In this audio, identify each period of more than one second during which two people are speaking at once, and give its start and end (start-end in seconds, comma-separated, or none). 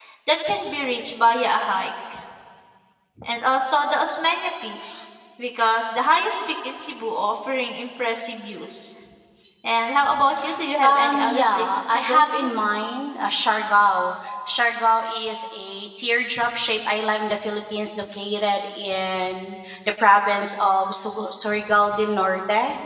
10.8-12.5